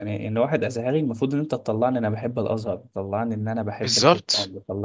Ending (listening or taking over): listening